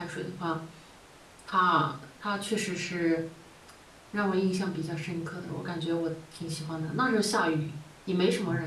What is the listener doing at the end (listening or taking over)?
taking over